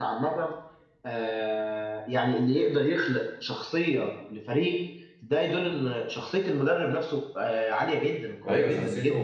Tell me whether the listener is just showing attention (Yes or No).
No